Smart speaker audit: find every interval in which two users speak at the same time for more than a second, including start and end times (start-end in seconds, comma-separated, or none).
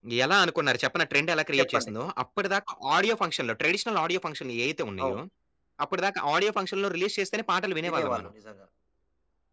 none